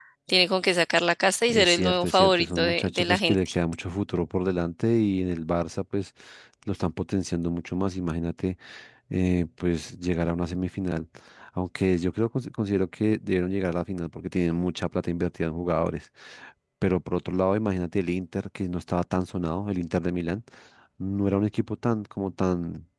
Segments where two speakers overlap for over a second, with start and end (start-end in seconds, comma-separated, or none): 1.5-3.5